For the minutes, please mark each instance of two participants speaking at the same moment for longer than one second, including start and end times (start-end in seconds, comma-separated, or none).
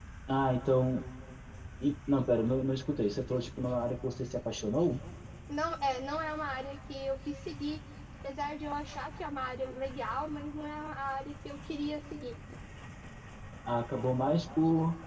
none